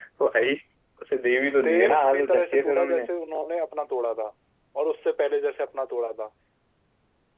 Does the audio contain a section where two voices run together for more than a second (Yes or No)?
Yes